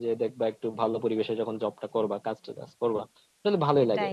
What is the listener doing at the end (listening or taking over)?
listening